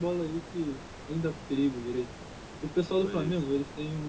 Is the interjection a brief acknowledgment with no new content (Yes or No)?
Yes